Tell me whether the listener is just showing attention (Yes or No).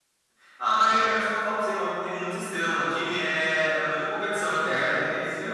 No